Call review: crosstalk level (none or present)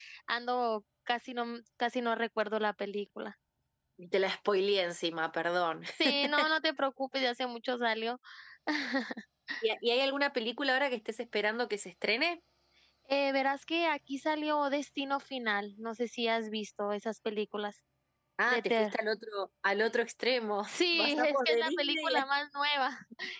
present